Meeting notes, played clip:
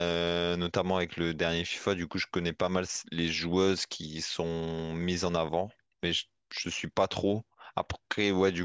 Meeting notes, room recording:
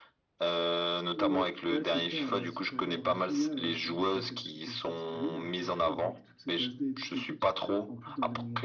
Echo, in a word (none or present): present